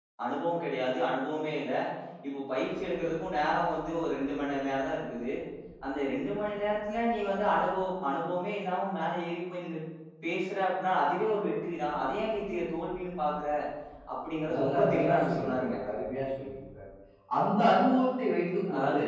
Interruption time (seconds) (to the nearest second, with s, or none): 15 s